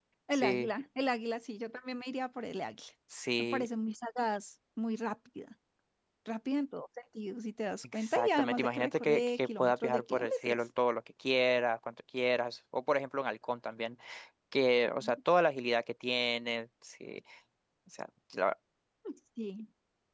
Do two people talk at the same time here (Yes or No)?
Yes